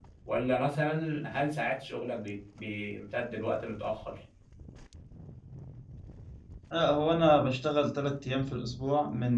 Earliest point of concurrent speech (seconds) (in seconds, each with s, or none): none